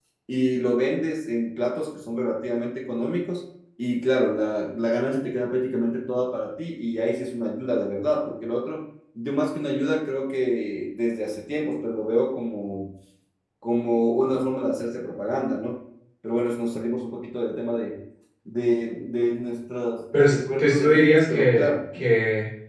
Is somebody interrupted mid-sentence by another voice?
Yes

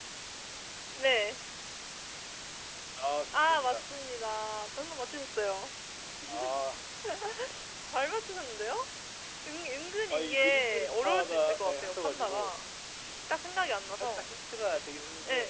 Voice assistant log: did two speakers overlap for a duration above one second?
Yes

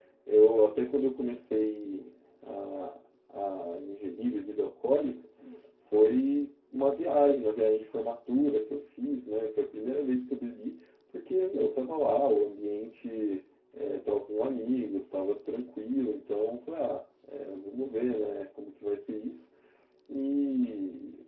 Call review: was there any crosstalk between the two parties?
No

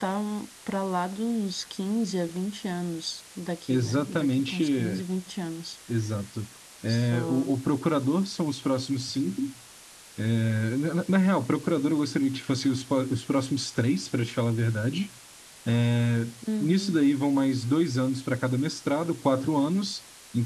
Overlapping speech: Yes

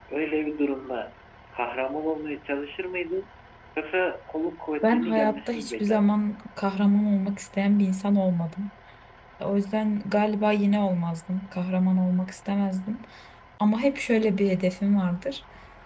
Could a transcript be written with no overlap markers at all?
No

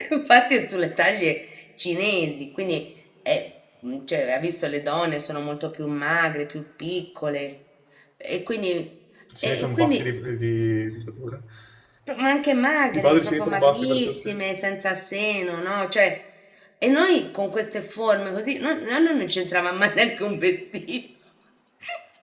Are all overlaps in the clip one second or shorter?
No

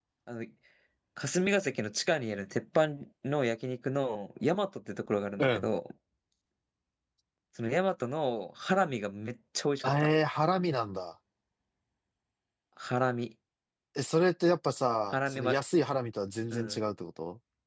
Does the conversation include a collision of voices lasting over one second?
No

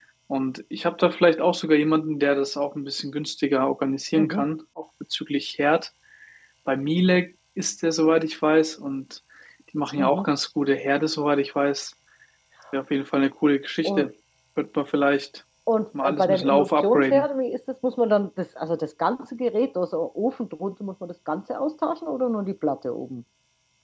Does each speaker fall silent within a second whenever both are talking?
No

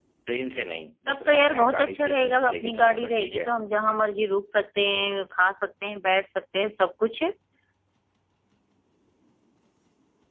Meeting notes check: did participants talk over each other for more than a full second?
Yes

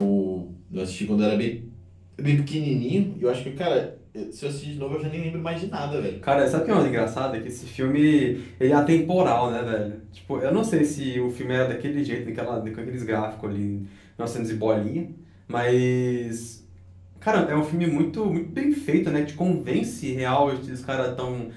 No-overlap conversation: Yes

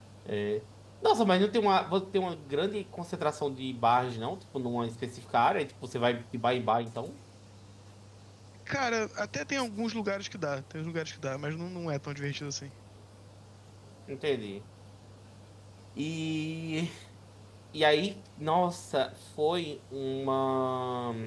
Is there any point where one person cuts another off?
No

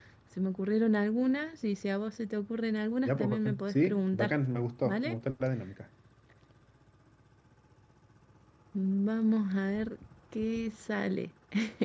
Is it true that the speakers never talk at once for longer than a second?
No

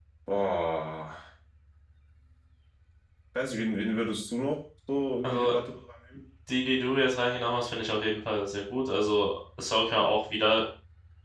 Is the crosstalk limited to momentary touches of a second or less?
Yes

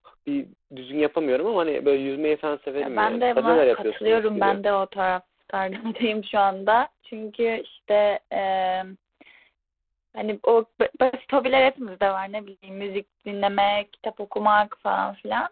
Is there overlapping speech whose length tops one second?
Yes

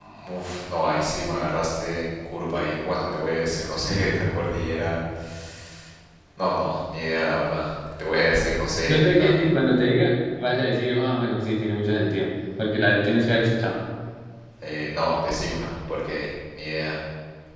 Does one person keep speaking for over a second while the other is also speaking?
No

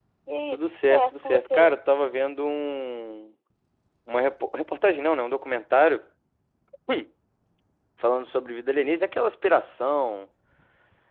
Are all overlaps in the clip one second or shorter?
No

